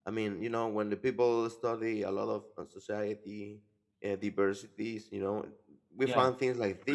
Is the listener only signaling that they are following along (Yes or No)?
Yes